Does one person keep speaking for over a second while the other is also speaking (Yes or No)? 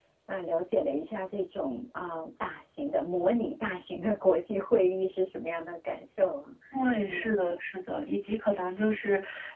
No